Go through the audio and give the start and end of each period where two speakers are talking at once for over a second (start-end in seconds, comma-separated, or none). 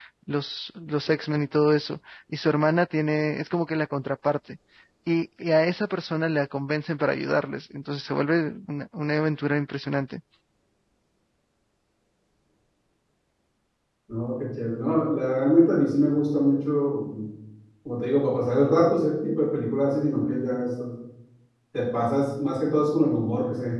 none